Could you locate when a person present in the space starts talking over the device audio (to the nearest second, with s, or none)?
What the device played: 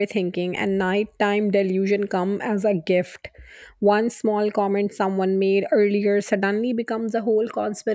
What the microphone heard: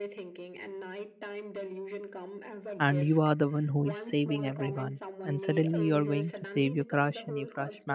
3 s